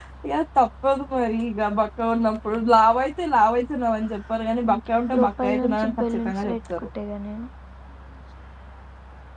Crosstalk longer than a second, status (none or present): present